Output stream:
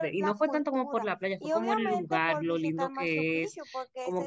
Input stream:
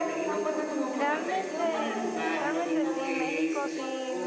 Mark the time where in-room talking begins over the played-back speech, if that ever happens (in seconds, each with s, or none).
0.9 s